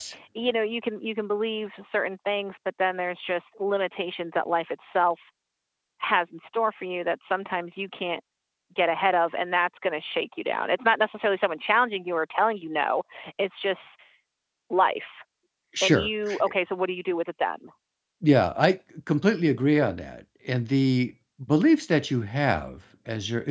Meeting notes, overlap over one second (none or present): none